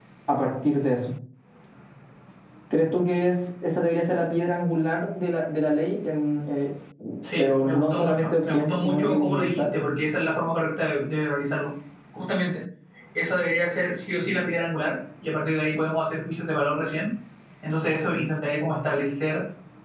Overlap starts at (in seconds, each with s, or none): 7.4 s